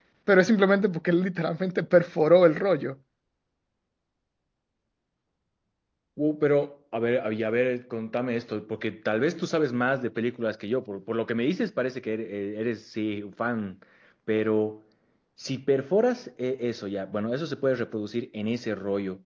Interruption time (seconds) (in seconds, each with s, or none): none